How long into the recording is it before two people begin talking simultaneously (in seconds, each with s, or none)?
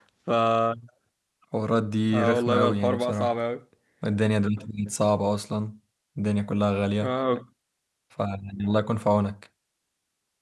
2.1 s